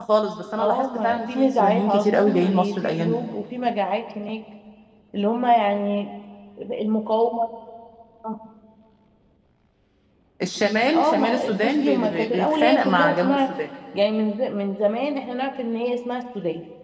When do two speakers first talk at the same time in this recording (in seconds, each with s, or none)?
0.6 s